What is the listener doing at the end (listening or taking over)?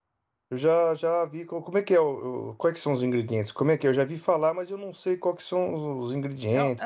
taking over